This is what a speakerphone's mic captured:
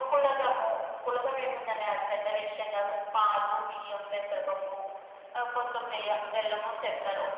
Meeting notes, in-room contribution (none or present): none